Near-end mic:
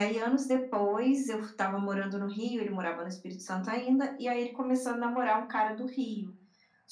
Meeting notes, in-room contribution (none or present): none